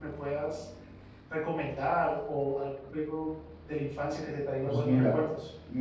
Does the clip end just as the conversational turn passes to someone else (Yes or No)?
Yes